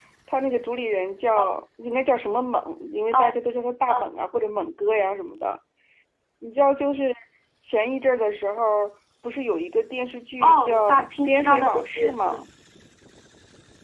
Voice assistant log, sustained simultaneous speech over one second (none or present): present